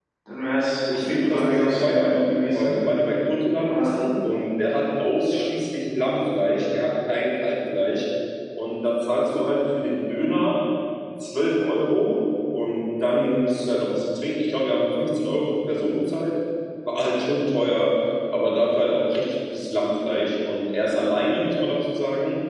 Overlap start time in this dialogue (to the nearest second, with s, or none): 1 s